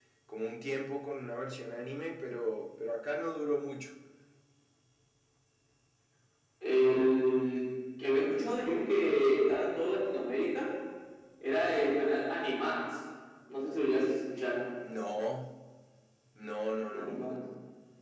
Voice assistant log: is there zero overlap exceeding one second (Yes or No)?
Yes